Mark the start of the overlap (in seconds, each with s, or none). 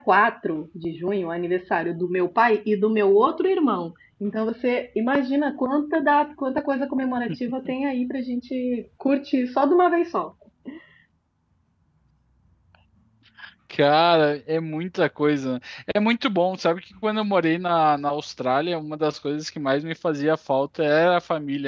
none